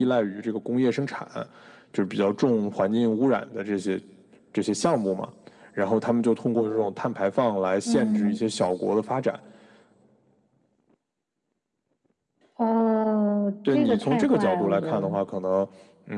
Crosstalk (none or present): present